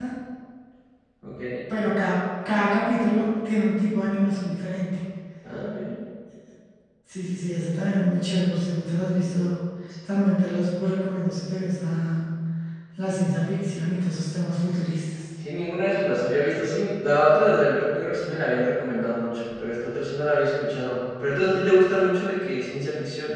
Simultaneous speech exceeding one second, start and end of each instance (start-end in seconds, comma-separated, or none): none